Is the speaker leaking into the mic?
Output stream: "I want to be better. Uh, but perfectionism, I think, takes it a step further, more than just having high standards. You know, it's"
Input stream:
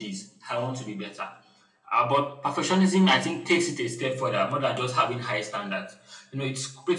Yes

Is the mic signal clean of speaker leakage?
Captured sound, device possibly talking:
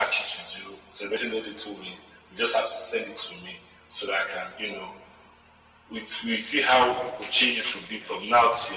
No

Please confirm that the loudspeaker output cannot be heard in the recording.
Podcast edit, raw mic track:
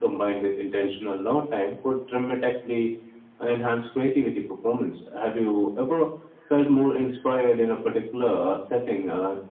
No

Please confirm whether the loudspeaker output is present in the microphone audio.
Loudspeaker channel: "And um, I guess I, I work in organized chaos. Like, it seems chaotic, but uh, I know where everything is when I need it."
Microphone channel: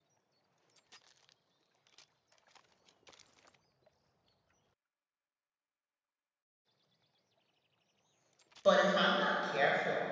No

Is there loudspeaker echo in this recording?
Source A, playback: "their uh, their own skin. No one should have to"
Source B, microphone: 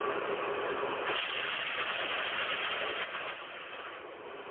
No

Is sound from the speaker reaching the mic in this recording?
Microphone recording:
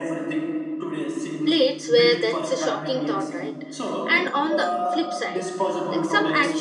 Yes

